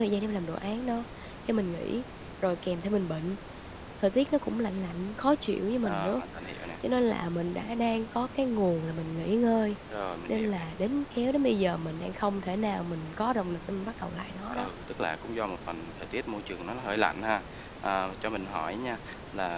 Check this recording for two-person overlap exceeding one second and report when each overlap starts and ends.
none

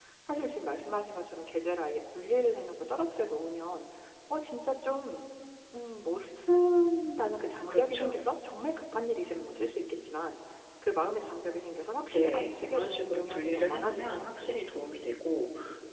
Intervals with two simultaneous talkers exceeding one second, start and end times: 12.1-14.6

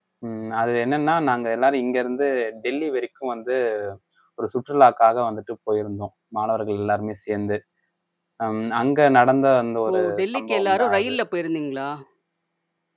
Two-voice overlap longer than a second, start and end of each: 9.9-11.2

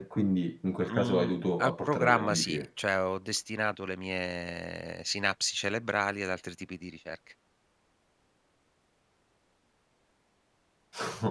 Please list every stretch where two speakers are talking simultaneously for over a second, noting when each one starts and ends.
0.8-2.6

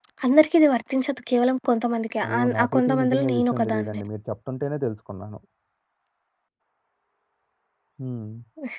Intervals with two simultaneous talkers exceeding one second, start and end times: 2.3-4.0

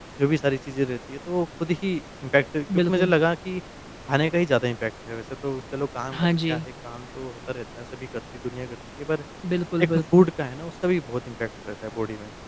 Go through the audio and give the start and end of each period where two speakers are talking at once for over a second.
none

